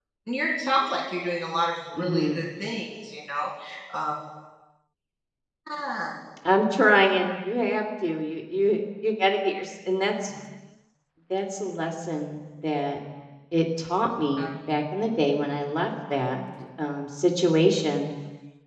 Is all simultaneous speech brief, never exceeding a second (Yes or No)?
Yes